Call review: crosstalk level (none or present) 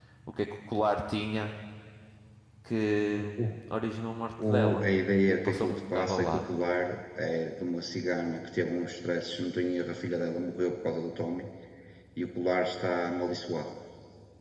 present